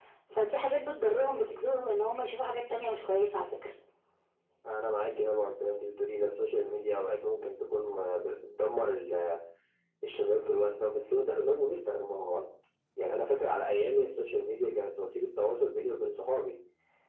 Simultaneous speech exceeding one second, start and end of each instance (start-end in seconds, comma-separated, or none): none